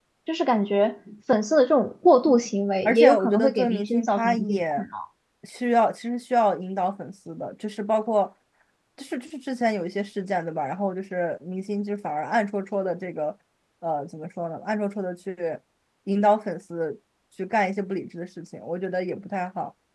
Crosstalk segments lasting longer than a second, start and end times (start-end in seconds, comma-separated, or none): 2.9-4.8